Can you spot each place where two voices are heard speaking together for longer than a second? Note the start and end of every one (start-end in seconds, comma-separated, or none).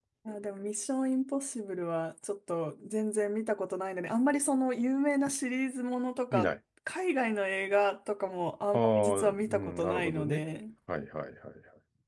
8.7-10.4